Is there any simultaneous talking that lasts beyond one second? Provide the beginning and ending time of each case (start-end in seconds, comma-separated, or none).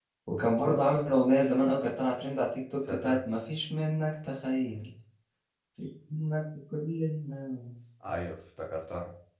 none